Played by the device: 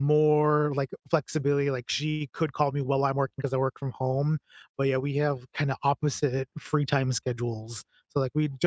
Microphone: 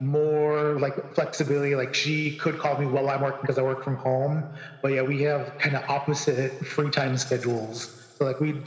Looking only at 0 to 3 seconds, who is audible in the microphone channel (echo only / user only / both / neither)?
echo only